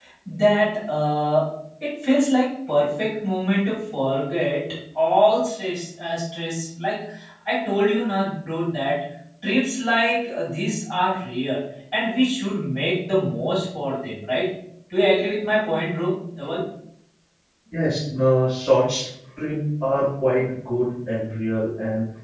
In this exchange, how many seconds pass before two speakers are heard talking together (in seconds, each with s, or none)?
none